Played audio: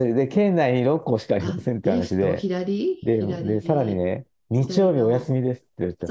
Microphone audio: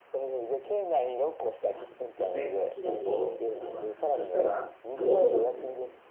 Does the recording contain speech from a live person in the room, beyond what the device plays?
Yes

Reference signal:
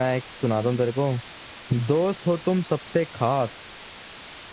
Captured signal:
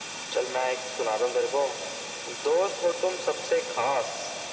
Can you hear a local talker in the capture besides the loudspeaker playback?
No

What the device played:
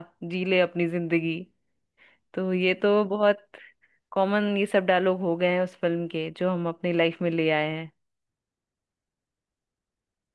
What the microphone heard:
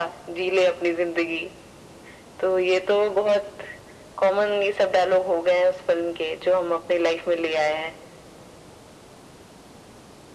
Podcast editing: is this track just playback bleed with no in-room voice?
Yes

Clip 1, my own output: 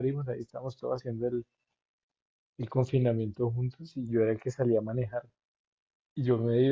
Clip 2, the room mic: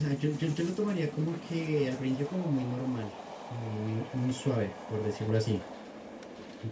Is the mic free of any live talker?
No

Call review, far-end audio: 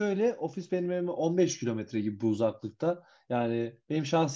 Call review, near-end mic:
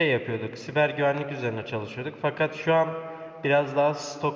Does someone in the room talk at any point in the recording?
Yes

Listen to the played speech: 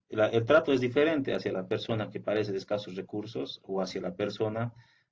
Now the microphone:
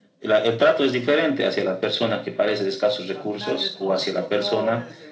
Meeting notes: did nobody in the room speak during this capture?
No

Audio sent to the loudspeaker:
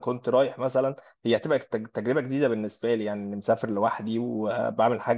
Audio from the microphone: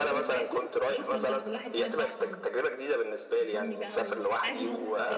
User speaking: Yes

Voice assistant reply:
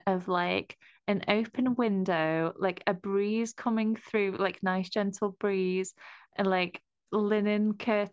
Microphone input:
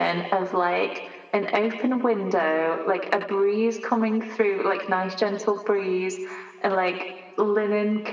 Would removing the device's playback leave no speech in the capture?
Yes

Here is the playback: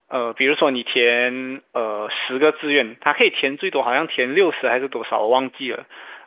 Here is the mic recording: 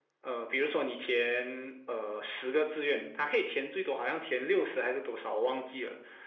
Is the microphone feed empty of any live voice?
Yes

